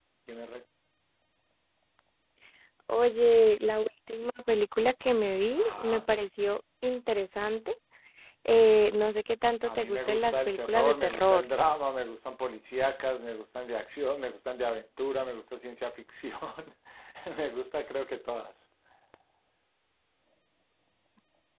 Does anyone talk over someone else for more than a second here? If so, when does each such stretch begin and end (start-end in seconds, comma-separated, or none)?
9.7-11.5